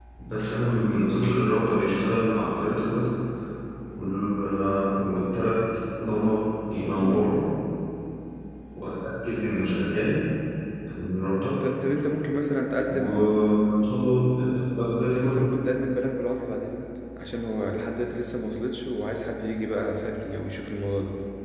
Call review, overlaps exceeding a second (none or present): none